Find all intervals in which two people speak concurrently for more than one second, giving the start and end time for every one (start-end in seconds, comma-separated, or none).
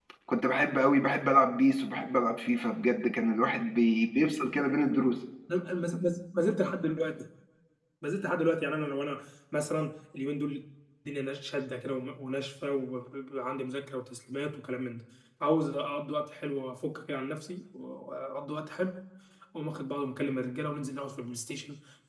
none